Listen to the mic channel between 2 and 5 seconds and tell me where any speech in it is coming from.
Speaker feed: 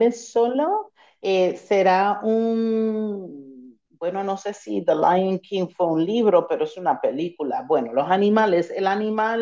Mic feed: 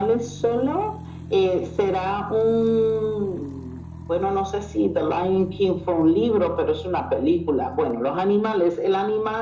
echo only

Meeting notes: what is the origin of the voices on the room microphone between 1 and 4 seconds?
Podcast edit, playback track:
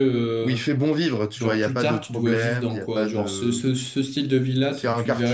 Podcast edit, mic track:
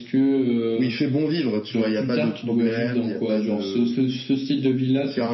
echo only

